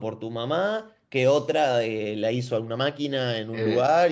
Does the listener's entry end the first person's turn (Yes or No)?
No